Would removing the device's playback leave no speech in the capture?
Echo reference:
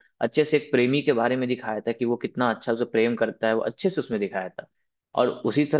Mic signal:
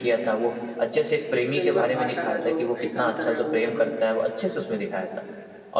No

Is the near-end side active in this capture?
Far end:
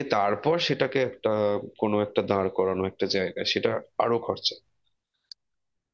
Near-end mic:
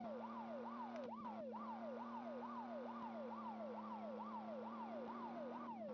No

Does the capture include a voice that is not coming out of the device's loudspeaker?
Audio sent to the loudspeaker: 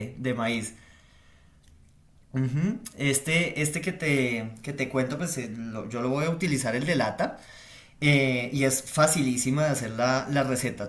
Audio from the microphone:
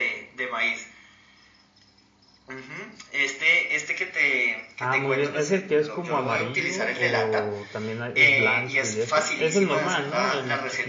Yes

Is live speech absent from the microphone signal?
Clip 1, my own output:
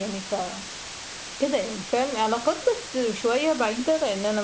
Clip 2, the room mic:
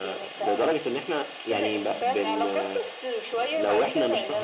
No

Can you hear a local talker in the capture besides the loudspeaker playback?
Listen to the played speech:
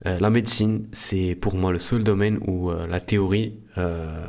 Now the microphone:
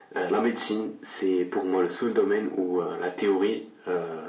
No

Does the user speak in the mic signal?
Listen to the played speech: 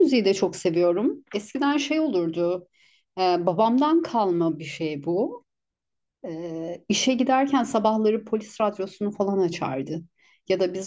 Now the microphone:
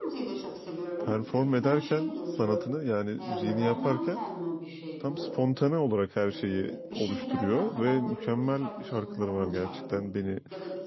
Yes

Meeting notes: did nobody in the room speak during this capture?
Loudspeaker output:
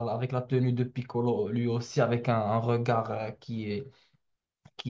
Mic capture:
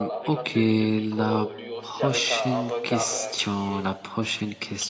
No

